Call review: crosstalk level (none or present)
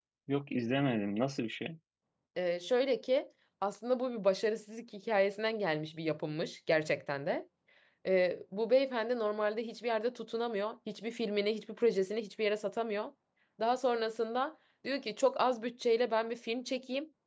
none